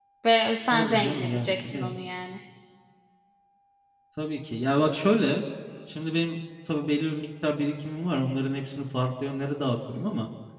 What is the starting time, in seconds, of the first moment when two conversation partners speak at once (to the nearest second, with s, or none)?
1 s